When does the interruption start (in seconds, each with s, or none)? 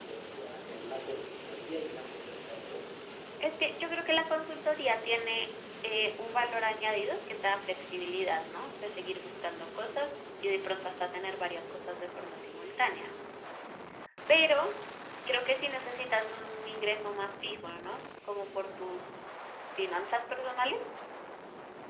none